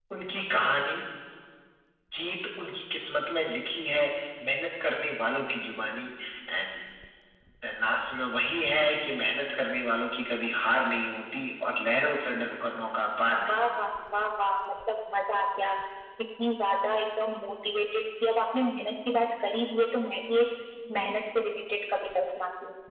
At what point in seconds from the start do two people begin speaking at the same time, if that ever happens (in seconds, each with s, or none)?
none